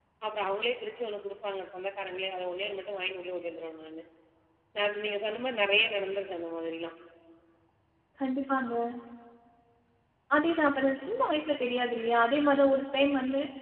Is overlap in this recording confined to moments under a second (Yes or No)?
Yes